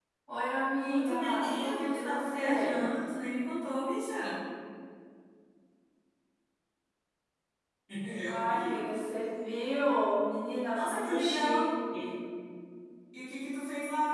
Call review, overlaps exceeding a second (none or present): present